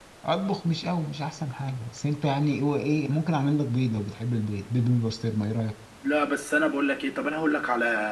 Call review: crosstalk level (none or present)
none